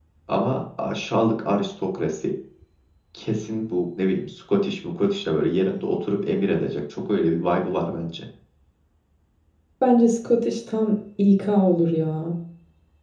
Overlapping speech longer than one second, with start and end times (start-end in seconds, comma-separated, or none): none